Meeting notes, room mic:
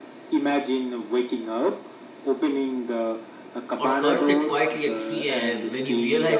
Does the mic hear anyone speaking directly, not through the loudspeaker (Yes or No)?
Yes